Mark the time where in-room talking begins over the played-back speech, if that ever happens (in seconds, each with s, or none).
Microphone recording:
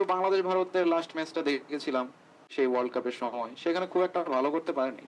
none